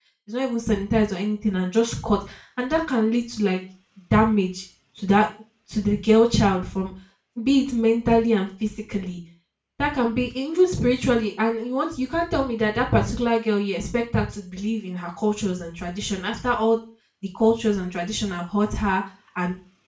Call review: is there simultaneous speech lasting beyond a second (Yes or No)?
No